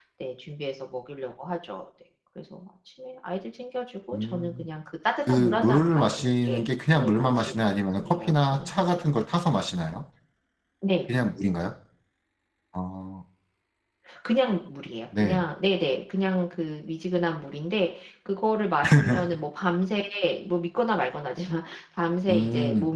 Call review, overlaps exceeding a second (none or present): present